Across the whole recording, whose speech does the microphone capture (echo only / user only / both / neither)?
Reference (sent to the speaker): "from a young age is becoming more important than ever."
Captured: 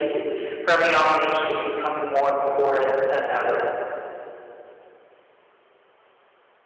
echo only